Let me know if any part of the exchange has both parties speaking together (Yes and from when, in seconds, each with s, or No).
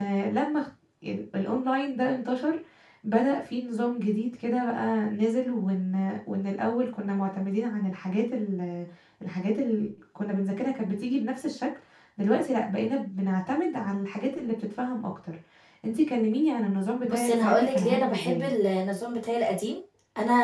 Yes, from 17.1 s